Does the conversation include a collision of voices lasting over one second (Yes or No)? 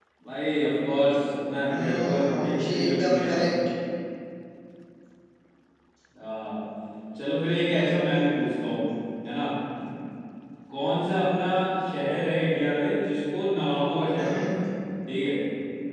Yes